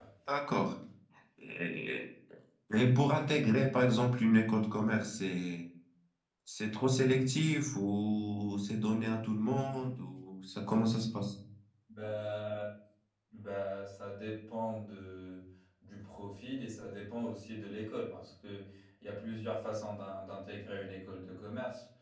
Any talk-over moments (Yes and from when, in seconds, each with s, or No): No